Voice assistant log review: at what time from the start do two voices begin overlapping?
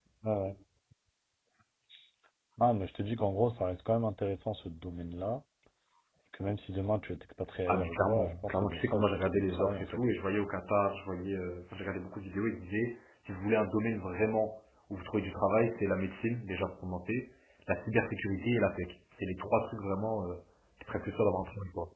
7.7 s

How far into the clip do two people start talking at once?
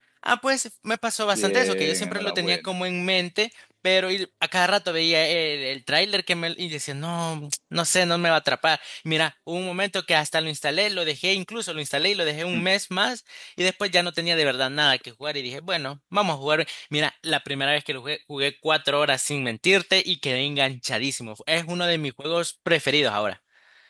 1.3 s

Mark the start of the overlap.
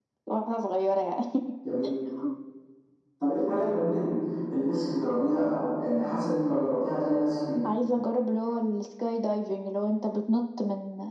none

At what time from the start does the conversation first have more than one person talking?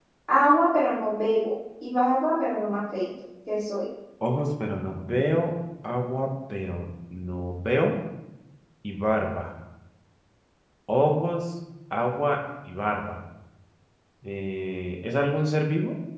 none

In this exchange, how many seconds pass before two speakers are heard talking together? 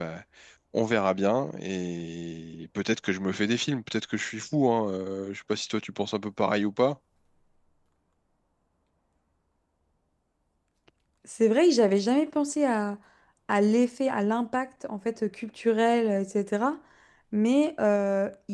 none

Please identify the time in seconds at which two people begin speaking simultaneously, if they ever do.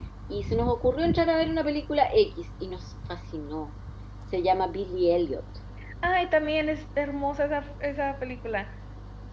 none

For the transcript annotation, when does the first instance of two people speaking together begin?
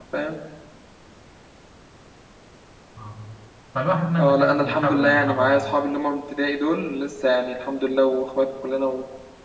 4.2 s

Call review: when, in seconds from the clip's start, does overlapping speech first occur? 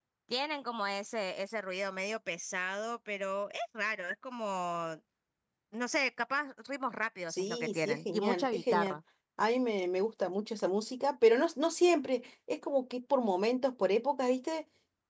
7.3 s

